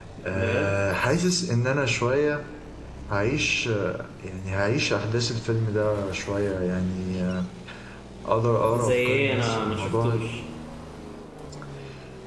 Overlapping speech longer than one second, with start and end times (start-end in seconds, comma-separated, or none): 8.8-10.2